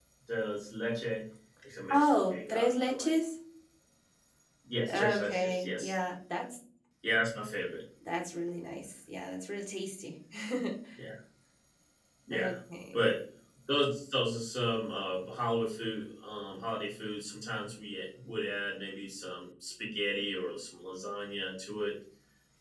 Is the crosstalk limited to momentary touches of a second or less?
No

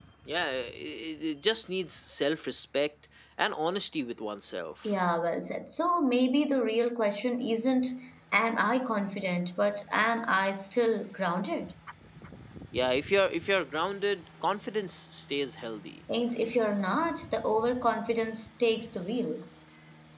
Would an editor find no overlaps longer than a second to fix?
Yes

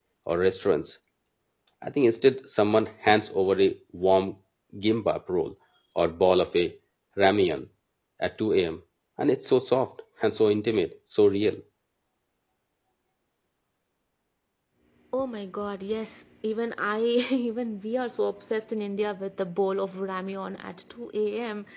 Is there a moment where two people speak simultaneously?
No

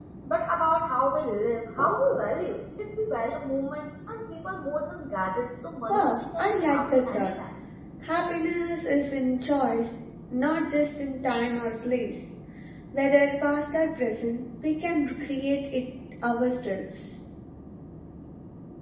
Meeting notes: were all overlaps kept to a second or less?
No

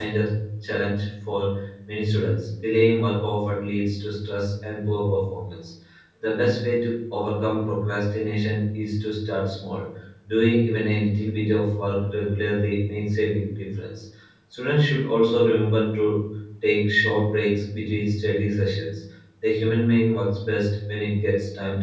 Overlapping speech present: No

